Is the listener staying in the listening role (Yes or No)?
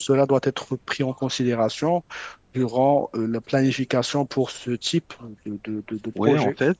No